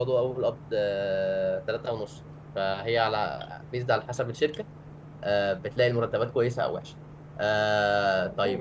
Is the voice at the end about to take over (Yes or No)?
Yes